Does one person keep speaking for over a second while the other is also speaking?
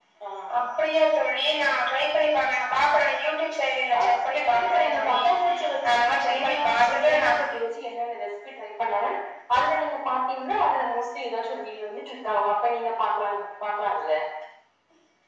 Yes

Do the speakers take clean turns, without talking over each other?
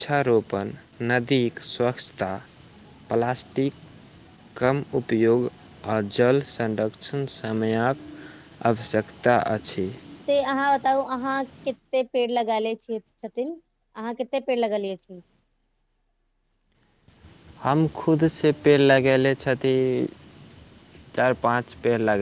Yes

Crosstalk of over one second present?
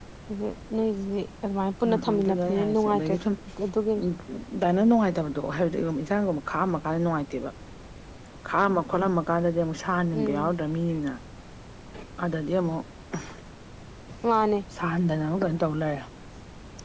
Yes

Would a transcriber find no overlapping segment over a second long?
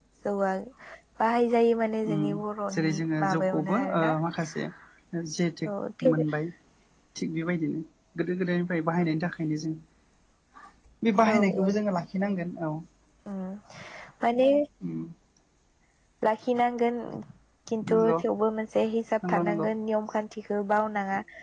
No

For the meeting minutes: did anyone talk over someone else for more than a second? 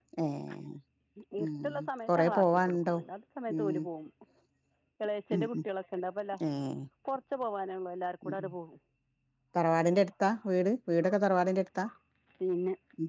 Yes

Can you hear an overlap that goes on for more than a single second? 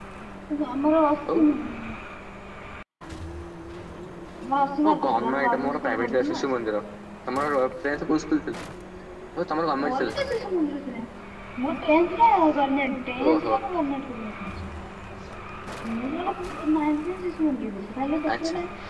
Yes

